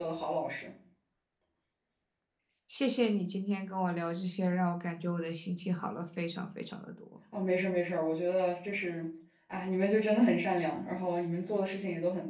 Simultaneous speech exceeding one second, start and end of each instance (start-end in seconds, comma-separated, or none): none